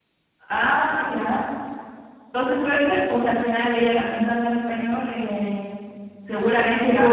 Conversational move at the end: taking over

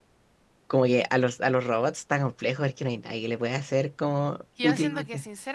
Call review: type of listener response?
taking over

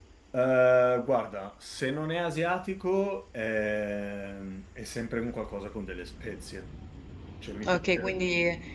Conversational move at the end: taking over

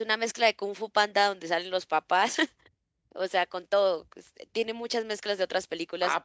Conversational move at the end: taking over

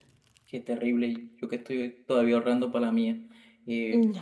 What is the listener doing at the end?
listening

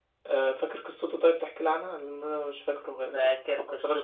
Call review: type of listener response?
taking over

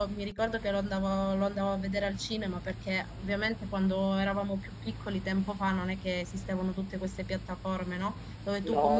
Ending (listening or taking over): listening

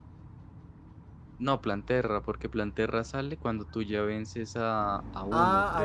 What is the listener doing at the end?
taking over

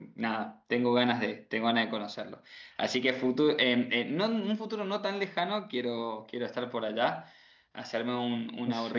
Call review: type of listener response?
listening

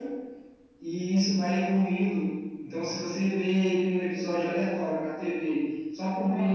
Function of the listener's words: listening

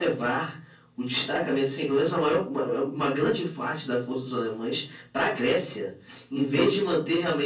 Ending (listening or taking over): listening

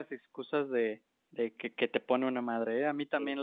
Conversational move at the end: listening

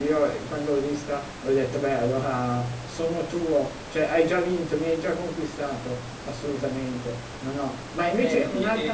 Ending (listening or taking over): listening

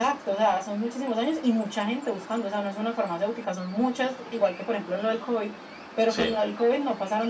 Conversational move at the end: listening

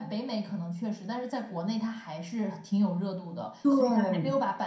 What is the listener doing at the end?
listening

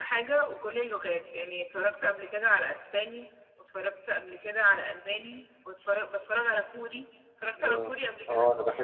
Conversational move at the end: taking over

